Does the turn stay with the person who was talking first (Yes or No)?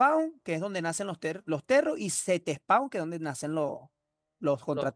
No